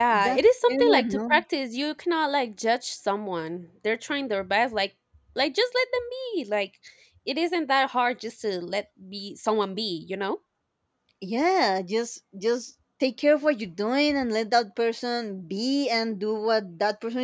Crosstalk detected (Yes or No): Yes